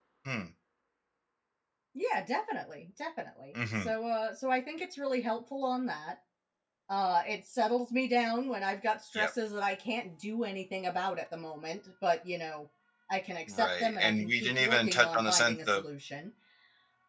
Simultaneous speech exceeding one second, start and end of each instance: 13.5-15.8

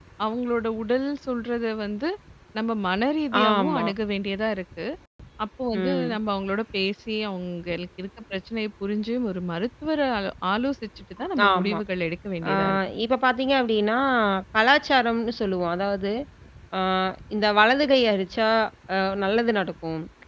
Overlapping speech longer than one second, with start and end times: none

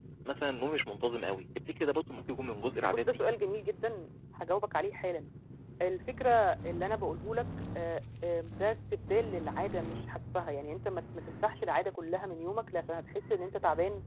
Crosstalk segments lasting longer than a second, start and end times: none

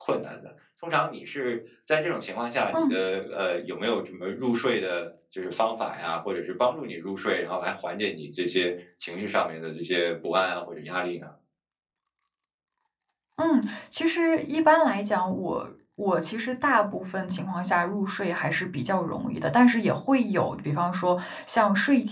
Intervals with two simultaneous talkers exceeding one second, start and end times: none

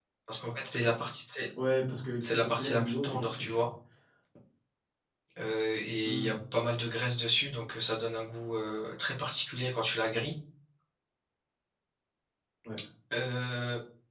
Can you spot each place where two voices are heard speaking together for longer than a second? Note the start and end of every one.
2.2-3.6

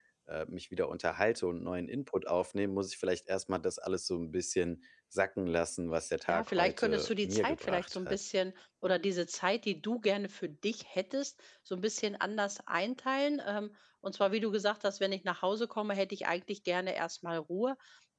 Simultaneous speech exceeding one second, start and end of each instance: 6.3-8.2

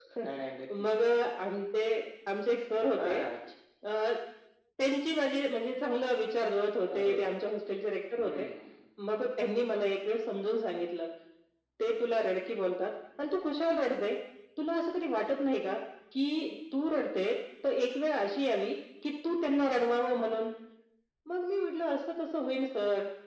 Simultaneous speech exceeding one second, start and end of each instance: none

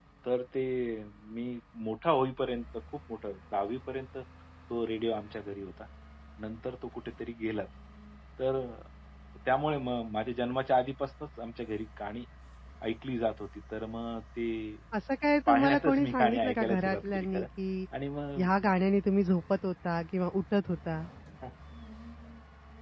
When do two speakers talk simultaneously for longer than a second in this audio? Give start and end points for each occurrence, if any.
15.5-17.5

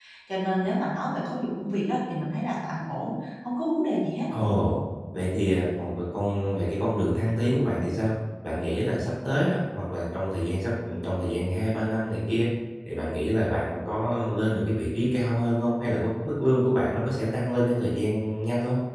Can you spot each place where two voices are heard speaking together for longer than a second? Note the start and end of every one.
none

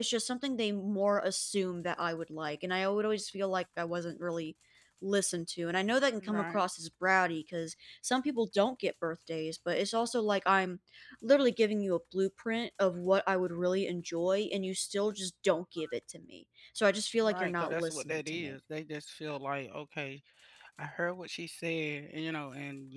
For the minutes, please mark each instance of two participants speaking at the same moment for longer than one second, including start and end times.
17.2-18.6

